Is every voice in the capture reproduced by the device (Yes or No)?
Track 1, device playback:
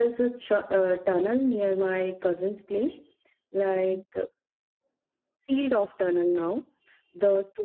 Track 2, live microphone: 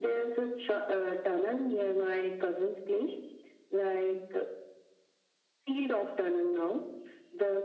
Yes